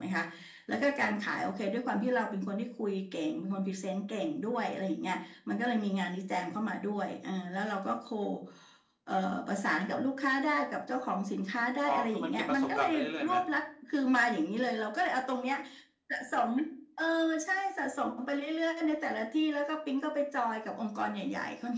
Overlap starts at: 11.8 s

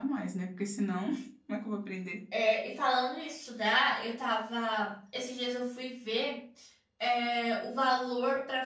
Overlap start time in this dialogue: none

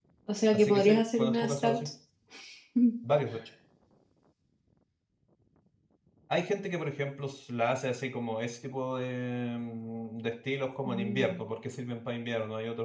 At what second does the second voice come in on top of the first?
0.5 s

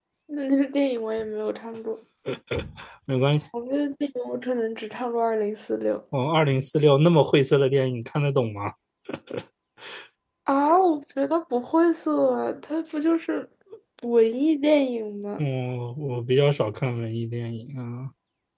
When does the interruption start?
none

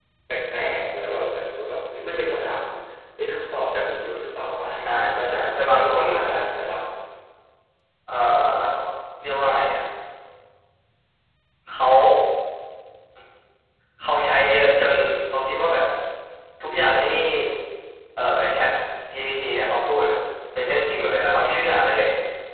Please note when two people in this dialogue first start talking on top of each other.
4.6 s

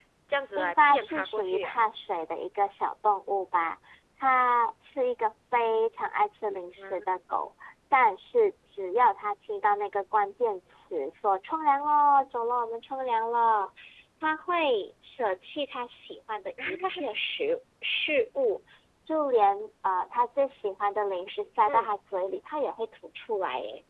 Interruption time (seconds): 0.6 s

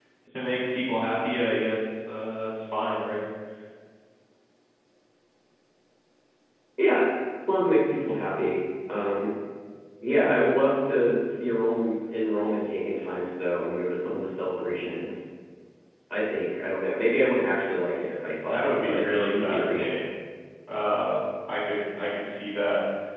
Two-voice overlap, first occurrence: 18.5 s

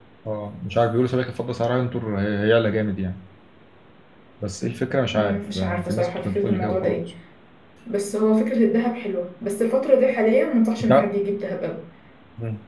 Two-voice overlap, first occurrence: 5.1 s

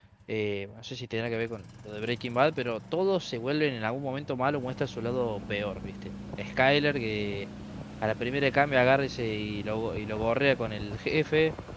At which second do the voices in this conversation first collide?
none

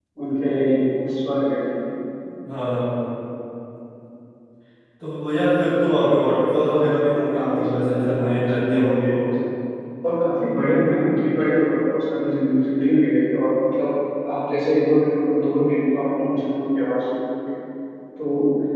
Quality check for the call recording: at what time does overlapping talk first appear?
6.5 s

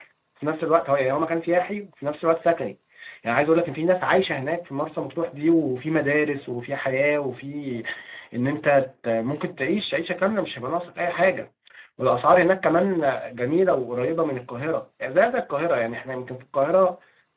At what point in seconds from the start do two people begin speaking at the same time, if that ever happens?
none

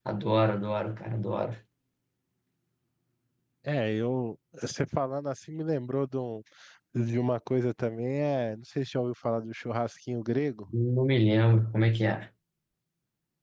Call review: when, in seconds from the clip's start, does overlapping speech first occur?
none

